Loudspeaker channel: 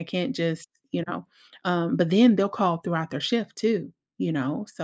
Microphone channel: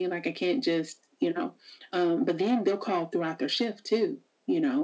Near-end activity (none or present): none